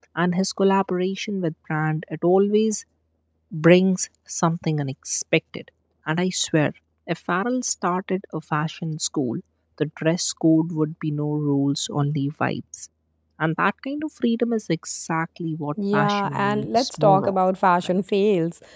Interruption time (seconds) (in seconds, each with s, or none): 15.8 s